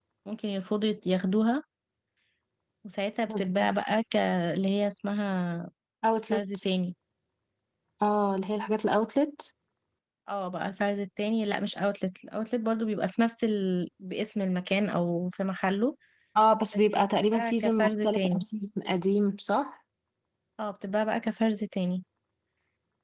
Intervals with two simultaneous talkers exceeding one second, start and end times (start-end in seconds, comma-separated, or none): 16.9-18.4